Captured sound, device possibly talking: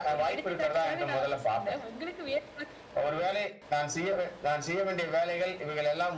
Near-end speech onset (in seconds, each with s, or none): none